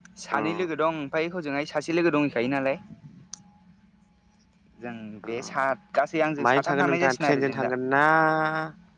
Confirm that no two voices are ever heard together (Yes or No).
No